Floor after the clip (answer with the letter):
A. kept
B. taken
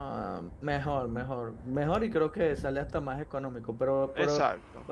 A